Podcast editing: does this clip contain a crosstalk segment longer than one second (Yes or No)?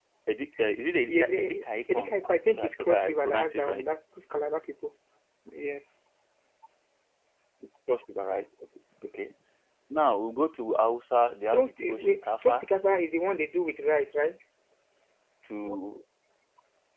Yes